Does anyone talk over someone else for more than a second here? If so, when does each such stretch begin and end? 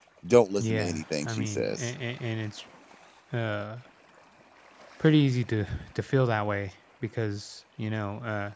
0.6-1.9

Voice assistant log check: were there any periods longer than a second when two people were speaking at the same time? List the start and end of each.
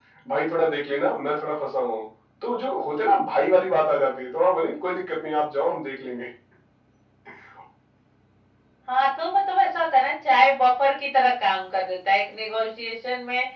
none

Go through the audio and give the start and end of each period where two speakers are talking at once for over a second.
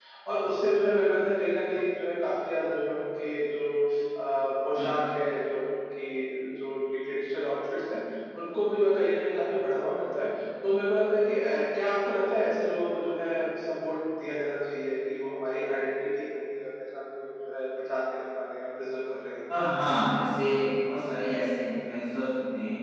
none

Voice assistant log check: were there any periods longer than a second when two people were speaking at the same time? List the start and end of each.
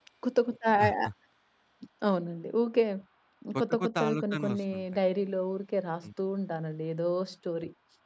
3.6-4.9

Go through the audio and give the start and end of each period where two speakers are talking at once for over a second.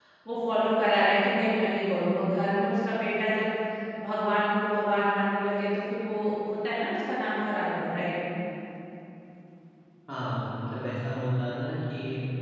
none

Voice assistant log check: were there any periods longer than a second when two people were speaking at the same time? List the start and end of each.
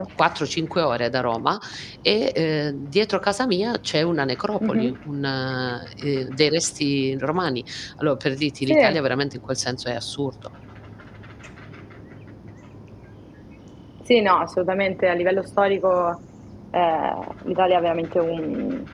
none

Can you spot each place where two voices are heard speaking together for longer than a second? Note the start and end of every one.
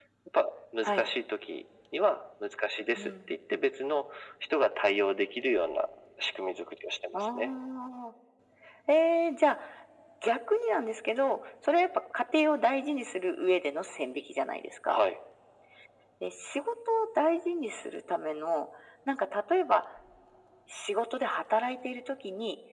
none

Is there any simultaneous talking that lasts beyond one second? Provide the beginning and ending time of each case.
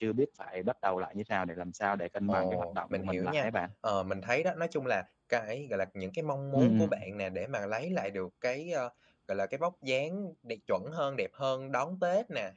2.3-3.5

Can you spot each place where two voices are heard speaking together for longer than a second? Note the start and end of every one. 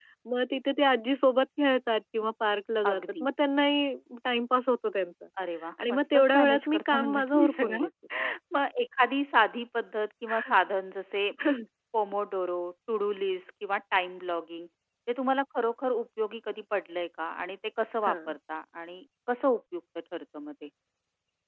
5.9-7.8

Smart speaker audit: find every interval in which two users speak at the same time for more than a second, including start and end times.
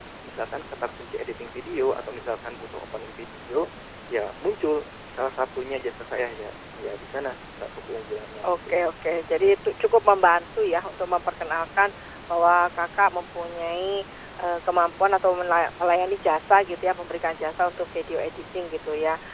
none

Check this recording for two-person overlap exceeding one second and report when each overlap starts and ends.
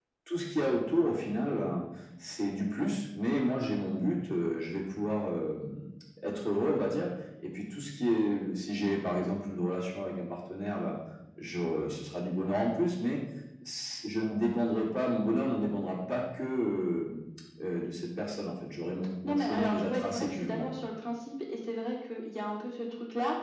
19.2-20.6

